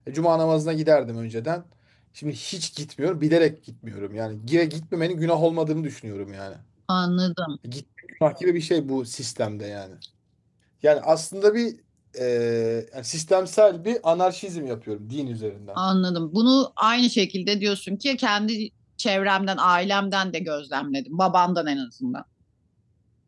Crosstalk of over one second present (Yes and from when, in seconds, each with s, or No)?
No